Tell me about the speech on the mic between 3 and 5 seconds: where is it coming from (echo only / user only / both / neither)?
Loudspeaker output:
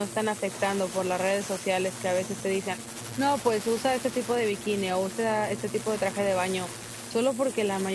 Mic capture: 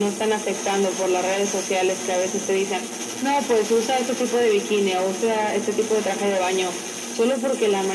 echo only